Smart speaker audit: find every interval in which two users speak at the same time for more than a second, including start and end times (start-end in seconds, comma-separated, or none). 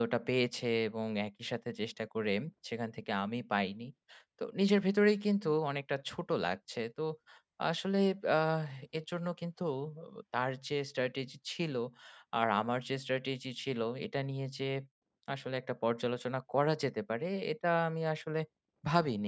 none